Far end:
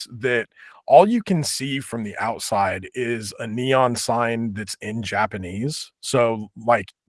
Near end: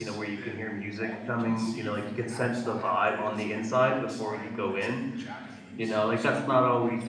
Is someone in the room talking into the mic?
Yes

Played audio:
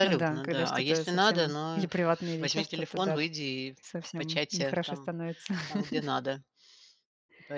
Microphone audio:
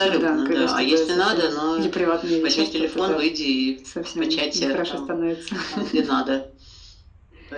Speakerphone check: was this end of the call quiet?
Yes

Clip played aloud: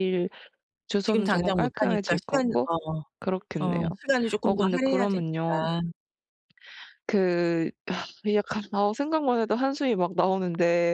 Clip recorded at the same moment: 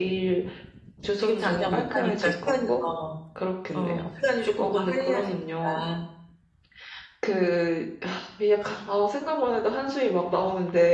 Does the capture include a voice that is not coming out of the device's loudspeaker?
No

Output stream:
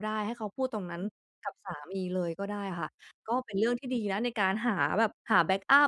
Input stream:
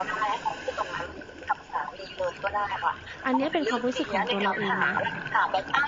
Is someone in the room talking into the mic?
Yes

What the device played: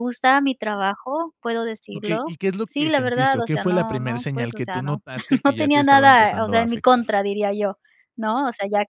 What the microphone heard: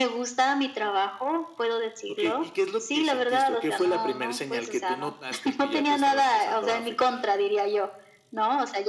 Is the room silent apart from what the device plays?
Yes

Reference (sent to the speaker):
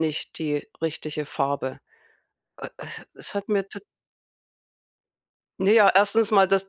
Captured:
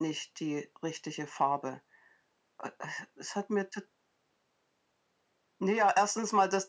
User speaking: No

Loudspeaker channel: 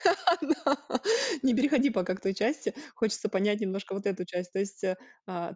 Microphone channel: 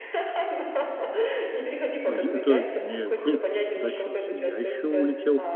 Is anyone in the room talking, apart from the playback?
Yes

